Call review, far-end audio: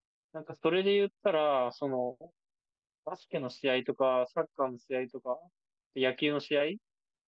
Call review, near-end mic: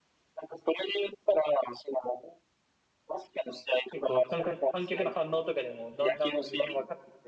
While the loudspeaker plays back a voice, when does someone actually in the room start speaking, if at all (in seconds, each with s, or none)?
3.9 s